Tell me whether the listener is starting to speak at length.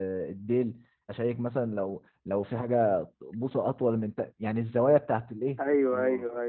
Yes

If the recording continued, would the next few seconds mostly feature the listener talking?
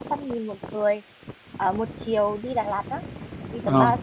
Yes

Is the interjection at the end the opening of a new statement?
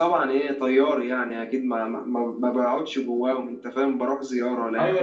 Yes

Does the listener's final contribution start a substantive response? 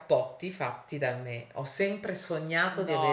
Yes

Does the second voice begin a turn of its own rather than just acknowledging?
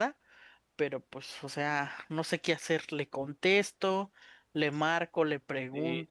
Yes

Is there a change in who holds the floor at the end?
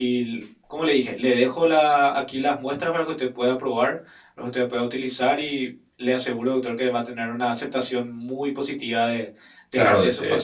Yes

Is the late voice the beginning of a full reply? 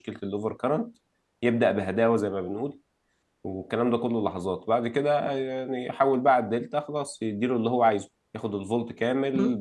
No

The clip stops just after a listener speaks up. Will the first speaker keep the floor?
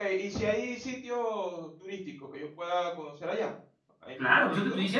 No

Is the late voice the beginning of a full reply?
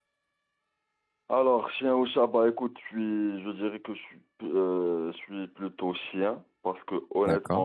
No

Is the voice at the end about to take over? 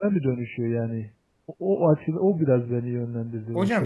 Yes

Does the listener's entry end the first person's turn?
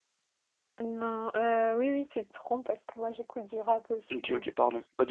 Yes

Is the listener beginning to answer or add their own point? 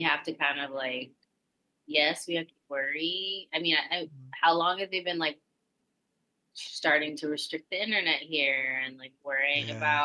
No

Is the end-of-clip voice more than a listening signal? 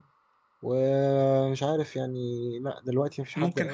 Yes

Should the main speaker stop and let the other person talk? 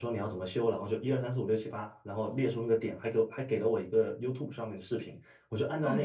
No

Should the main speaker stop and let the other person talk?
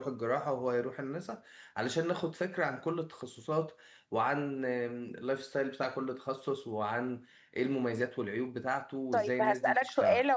Yes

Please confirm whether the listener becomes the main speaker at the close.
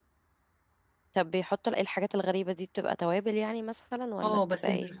Yes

